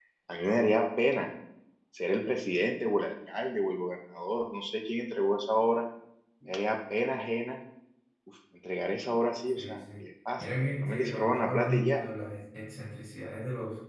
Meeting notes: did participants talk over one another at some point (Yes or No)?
Yes